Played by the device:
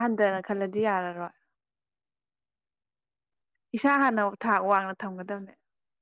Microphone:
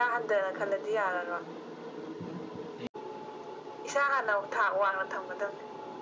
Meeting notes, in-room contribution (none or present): none